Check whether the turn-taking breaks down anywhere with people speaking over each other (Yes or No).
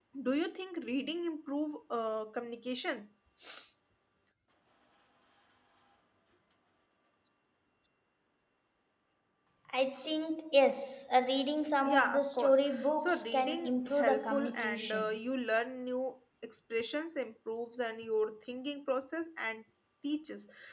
Yes